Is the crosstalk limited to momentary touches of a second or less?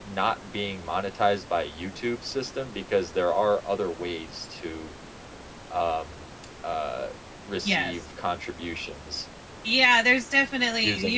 Yes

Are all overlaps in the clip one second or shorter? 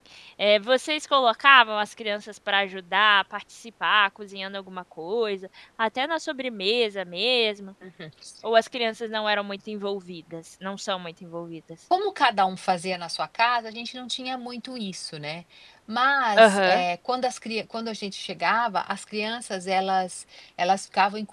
Yes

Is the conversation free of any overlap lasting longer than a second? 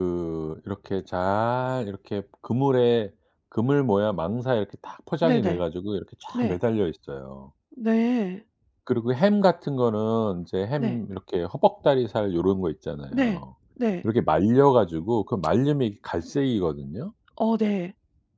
Yes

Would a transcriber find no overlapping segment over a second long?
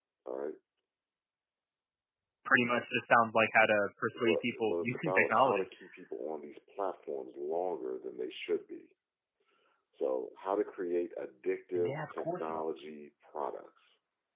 No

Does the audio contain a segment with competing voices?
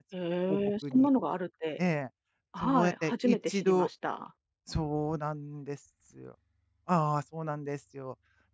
Yes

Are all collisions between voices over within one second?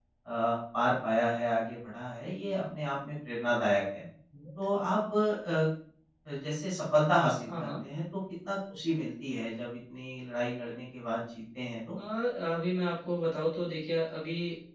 Yes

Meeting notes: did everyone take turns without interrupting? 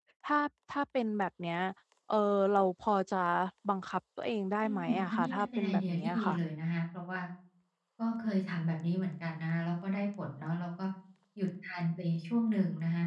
No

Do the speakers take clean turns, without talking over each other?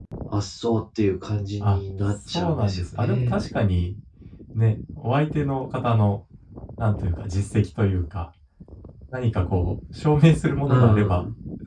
No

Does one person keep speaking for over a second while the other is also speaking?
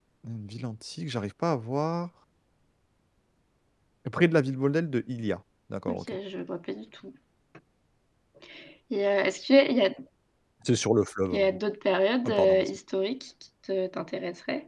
No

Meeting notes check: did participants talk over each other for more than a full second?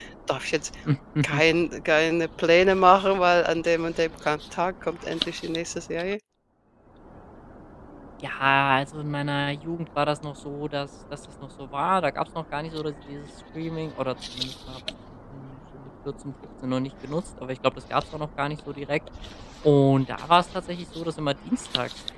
No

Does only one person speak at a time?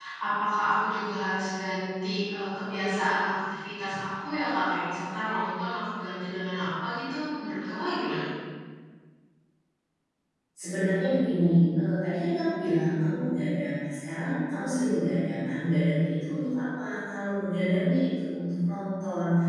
Yes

